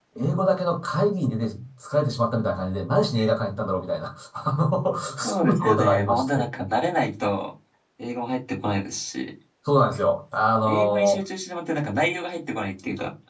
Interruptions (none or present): present